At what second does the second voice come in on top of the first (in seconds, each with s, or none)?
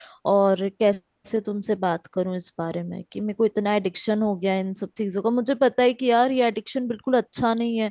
none